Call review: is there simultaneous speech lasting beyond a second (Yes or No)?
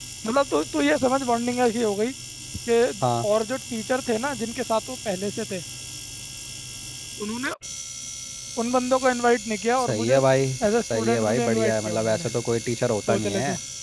Yes